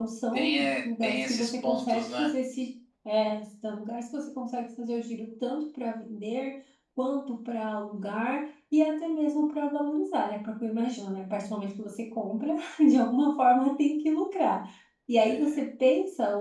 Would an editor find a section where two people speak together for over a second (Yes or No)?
Yes